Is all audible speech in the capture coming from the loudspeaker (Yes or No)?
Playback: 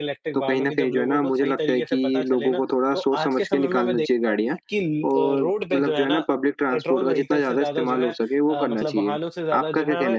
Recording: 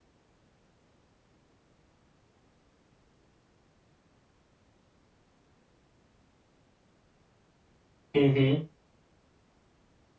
No